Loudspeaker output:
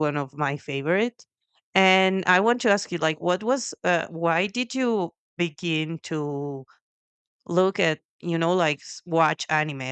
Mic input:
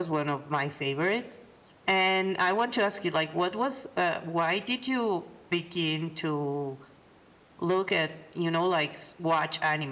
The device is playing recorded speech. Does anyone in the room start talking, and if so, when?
none

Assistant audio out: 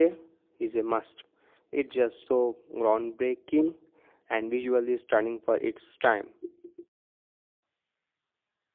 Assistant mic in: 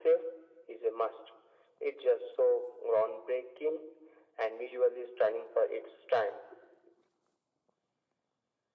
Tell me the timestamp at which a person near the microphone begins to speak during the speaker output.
none

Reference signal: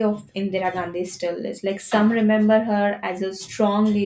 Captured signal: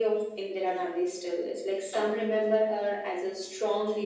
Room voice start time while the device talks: none

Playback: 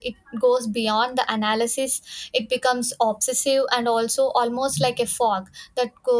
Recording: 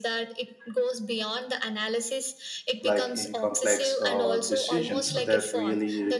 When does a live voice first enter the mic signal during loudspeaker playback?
2.8 s

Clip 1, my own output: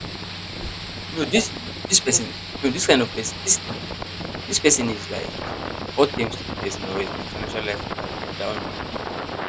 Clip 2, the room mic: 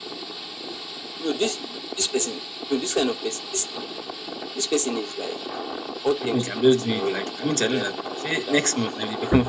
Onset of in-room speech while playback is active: 6.2 s

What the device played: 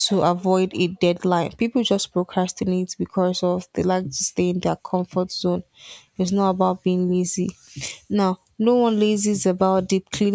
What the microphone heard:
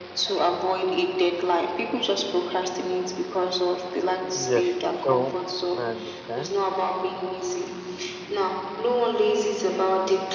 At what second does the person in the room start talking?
4.3 s

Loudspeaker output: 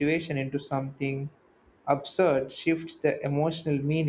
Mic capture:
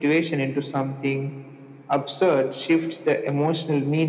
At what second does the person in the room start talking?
none

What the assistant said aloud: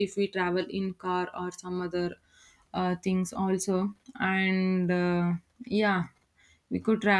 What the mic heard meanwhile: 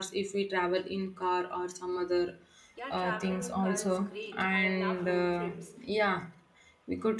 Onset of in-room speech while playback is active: 2.7 s

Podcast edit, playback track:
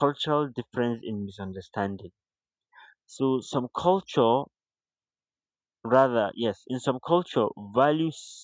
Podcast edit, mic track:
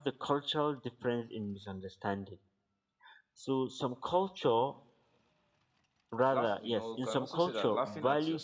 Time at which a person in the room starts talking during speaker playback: 6.3 s

